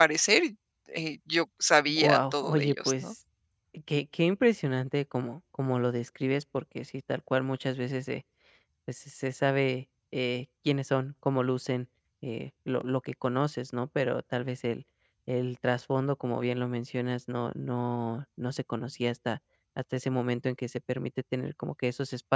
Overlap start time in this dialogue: 2 s

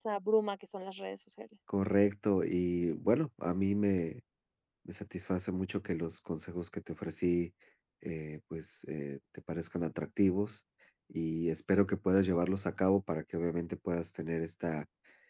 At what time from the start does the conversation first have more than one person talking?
none

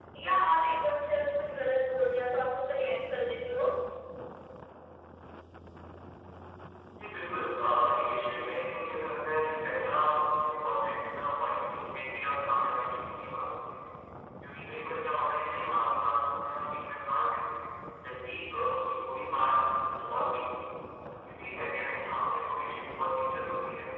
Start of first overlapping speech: none

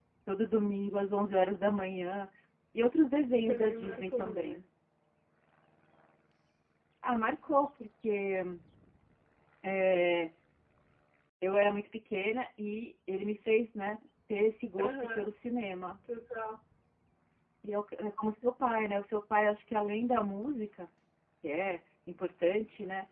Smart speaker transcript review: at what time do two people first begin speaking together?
3 s

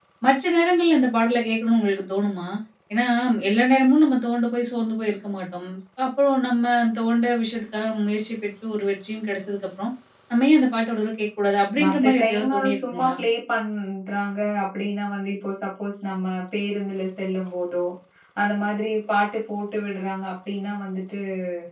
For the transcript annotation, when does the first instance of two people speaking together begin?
12 s

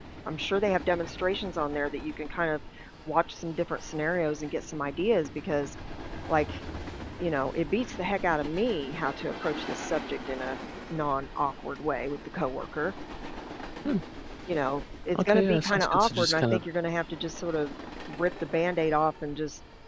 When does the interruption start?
15 s

